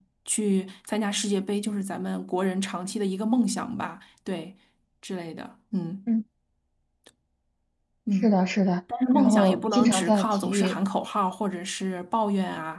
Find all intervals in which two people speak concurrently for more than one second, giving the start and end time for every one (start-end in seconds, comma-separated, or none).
9.1-10.8